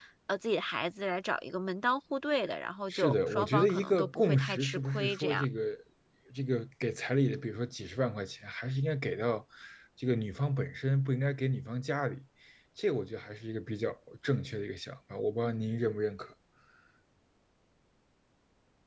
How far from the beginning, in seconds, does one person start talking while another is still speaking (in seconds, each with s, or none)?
2.9 s